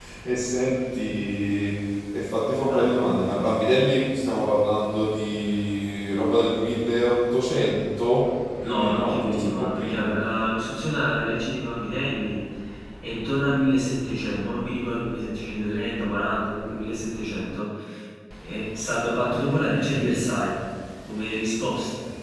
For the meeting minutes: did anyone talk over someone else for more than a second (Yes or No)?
Yes